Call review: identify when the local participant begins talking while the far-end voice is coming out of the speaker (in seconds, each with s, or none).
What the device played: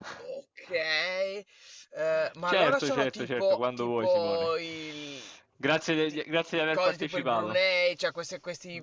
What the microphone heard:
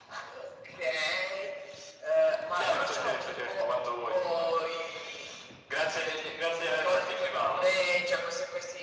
none